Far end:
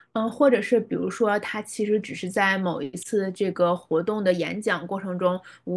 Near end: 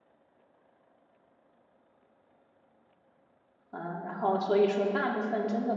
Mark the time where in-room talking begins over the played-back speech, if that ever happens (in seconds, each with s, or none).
3.7 s